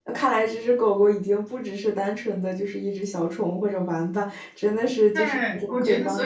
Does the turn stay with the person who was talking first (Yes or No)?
No